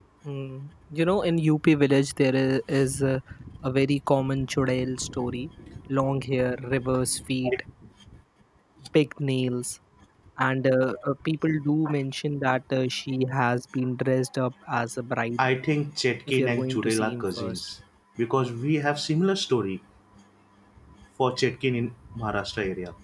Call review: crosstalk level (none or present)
present